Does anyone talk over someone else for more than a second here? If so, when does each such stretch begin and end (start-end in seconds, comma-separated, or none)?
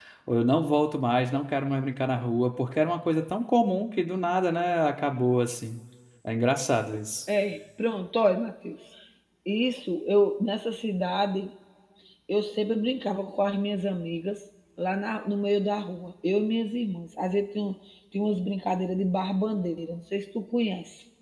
none